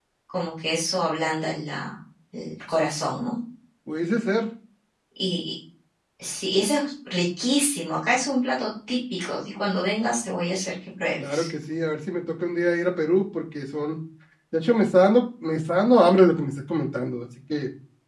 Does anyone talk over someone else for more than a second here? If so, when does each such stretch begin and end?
none

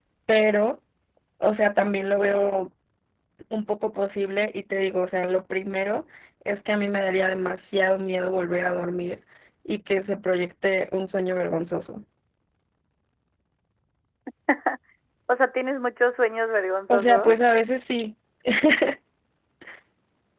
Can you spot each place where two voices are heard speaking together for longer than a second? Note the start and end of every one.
none

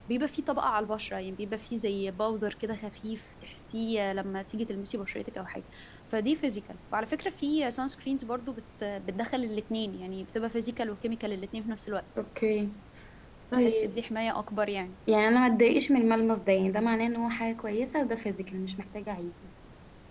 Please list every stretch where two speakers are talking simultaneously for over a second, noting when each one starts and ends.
none

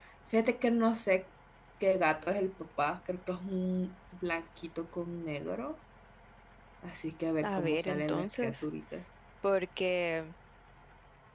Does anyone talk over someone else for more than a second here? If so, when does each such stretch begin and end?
7.4-8.6

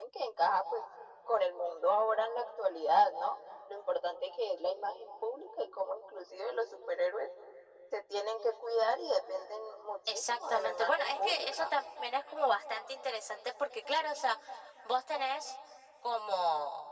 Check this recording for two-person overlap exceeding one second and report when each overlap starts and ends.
10.1-11.7

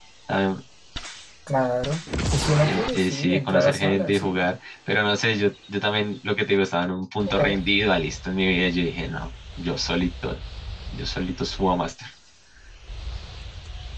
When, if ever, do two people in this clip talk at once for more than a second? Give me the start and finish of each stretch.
2.7-4.4

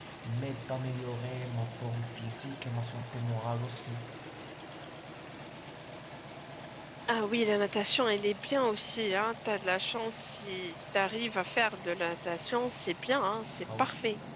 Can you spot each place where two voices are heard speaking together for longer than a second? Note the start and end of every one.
none

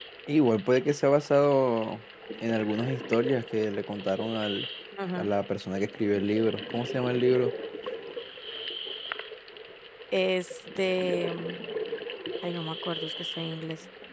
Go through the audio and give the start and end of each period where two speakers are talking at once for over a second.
none

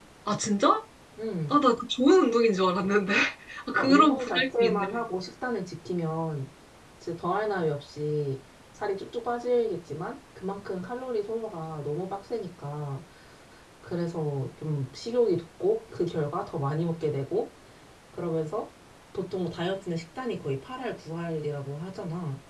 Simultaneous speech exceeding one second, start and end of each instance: 3.7-5.0

